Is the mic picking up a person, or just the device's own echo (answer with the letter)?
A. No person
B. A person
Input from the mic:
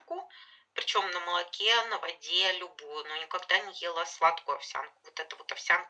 A